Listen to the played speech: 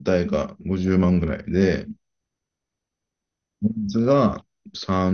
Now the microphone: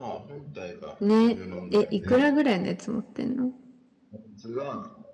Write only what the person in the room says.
ね。え、いくらぐらいのやつ持ってんの

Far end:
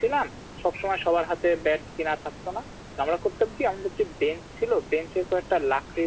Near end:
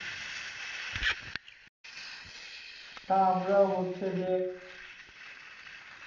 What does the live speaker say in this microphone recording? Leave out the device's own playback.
তা আমরা হচ্ছে যে

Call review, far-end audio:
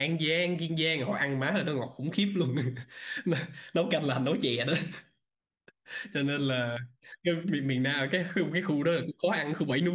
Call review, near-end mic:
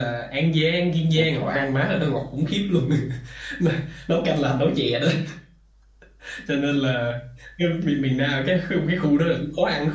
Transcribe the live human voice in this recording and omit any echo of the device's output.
Ủa, mà

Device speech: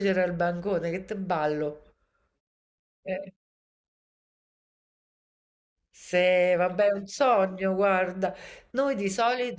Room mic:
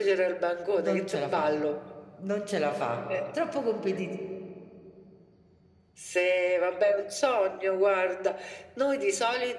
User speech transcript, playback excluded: Non ce la fa, non ce la fa, troppo competitivo.

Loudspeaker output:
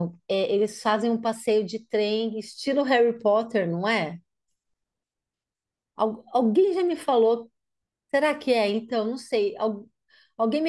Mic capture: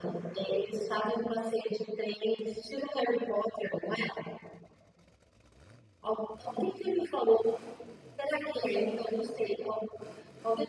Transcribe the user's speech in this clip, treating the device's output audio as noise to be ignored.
none

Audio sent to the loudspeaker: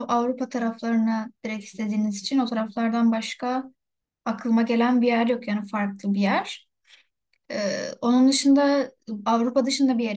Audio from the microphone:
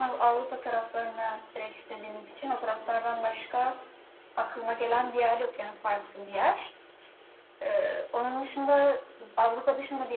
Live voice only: none

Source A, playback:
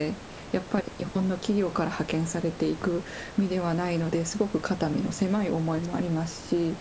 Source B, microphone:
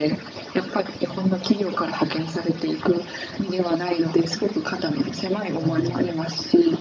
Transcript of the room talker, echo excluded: ええ、

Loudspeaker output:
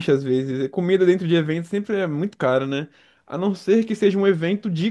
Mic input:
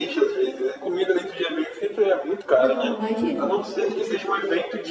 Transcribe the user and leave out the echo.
Não, imagina.

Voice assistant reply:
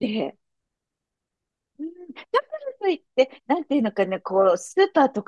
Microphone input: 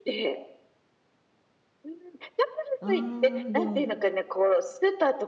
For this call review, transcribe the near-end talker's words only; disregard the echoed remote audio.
あー、でも、

